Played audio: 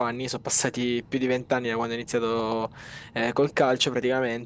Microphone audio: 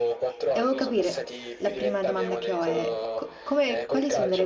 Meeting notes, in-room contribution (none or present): present